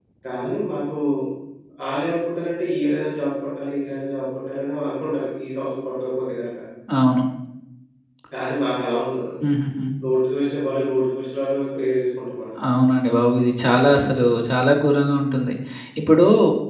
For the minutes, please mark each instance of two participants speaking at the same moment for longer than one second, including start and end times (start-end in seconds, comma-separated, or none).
none